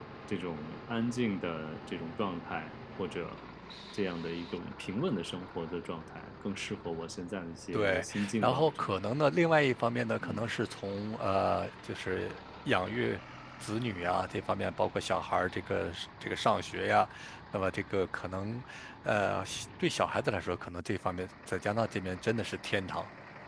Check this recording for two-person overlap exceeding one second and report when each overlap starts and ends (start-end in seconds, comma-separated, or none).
7.7-9.0